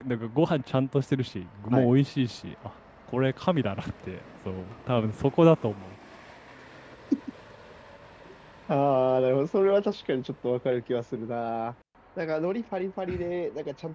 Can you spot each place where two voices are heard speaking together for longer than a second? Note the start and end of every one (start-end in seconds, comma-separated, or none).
none